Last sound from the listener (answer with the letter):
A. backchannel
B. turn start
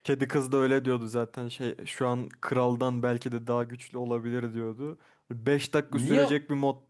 A